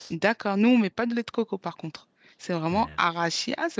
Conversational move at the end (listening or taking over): listening